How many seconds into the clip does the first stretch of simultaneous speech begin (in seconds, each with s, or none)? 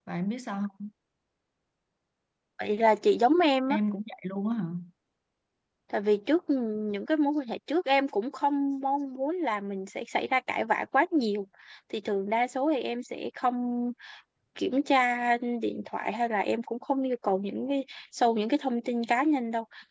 none